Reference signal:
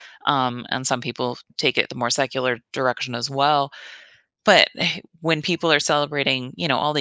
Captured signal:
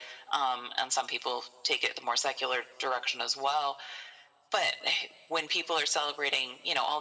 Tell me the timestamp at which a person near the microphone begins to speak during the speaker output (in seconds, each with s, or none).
none